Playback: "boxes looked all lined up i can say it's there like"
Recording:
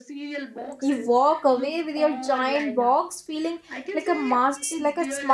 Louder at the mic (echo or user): user